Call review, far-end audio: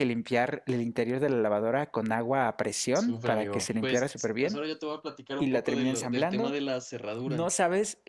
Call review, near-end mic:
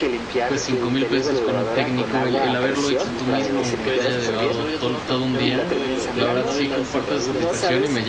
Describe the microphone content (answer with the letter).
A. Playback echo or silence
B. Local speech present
B